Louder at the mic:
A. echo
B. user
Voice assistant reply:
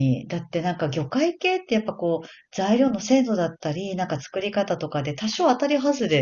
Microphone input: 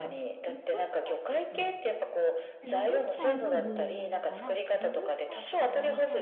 A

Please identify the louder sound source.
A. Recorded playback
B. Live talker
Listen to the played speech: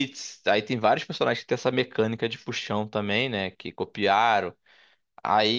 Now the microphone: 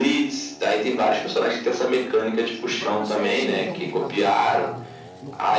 A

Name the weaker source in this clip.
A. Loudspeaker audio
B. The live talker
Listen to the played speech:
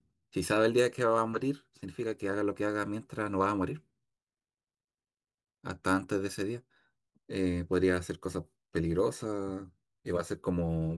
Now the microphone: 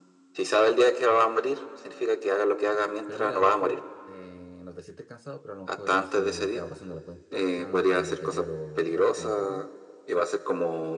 B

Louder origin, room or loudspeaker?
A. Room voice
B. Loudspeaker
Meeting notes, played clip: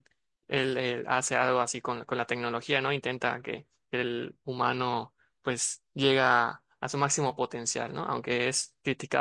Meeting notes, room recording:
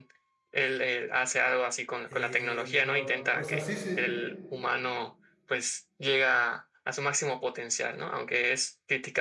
B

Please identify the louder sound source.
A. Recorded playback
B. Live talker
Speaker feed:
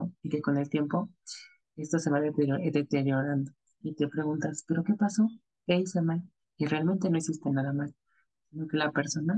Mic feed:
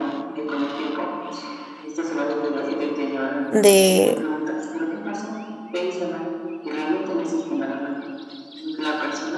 B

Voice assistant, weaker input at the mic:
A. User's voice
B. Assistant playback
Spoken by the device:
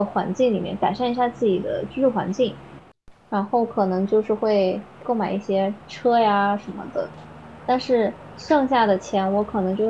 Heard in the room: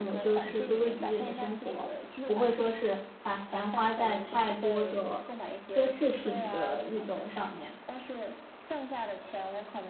B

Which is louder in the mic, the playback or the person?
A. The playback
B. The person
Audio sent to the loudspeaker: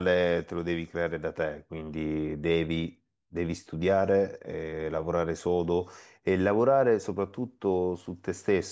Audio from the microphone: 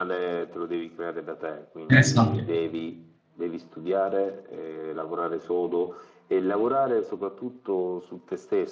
B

